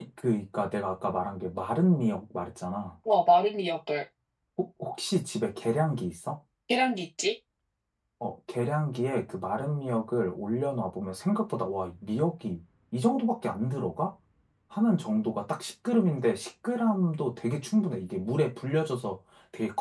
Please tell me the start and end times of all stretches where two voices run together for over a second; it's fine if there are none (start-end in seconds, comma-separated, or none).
none